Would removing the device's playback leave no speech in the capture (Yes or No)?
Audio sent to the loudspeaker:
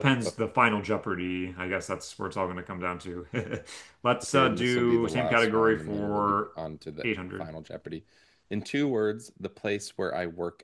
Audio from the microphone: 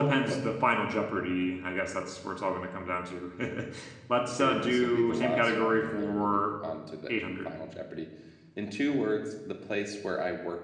Yes